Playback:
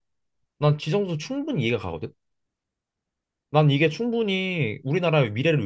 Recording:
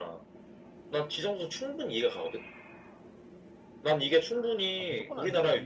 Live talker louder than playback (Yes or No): No